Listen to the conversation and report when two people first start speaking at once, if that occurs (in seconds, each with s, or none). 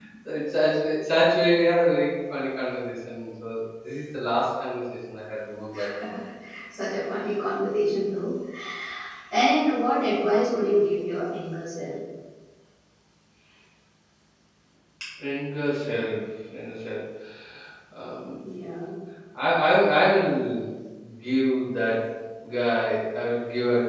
none